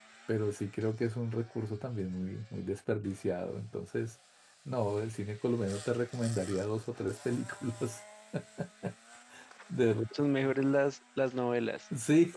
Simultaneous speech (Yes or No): No